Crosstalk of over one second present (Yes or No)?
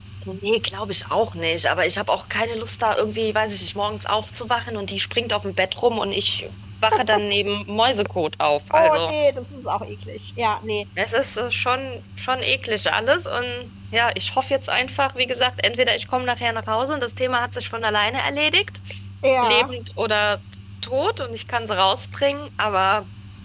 No